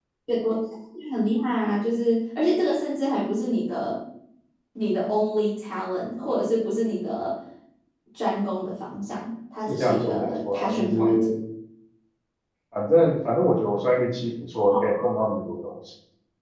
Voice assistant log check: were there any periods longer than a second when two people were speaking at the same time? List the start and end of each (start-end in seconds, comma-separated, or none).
9.7-11.2